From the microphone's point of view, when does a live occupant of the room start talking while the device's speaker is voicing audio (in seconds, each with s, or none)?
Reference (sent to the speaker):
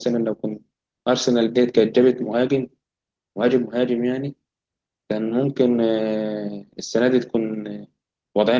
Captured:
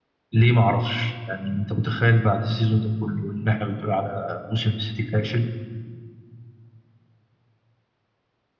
0.3 s